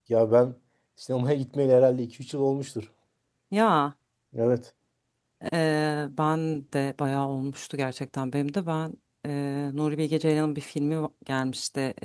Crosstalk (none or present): none